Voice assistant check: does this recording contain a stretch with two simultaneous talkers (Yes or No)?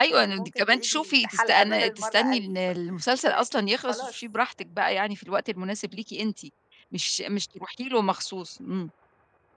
Yes